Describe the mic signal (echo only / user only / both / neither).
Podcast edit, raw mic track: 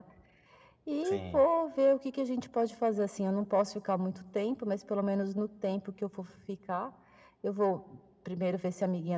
both